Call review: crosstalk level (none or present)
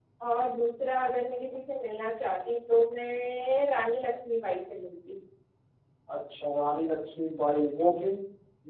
none